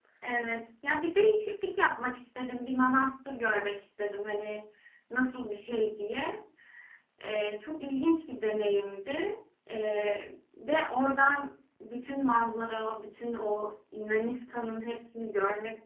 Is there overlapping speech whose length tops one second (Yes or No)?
No